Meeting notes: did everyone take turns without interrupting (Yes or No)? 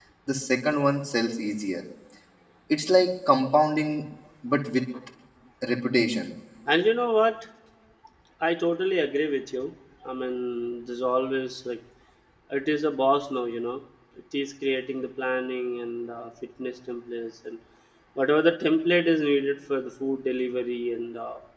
Yes